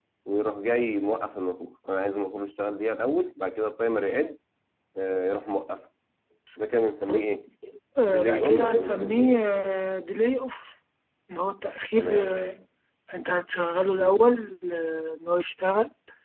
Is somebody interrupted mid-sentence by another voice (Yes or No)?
Yes